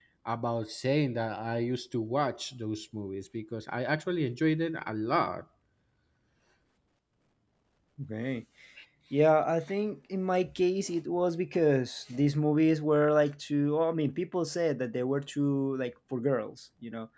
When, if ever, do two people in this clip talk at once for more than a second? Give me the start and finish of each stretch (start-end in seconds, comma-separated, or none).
none